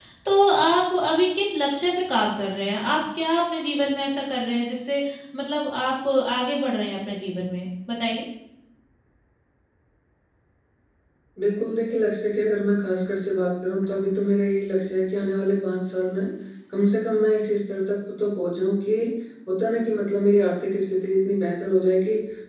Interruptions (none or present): none